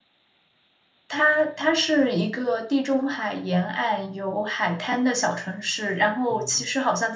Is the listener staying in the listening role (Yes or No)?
Yes